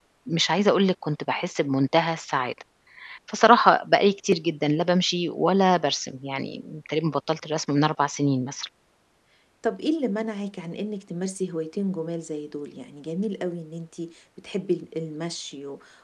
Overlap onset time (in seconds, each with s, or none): none